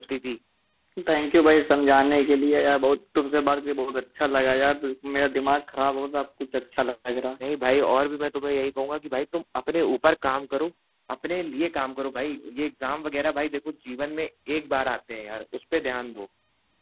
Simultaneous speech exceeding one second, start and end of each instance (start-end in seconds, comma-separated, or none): none